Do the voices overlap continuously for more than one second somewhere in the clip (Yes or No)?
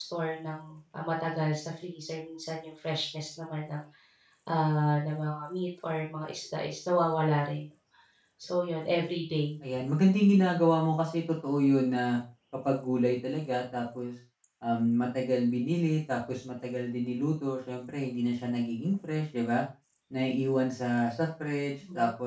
No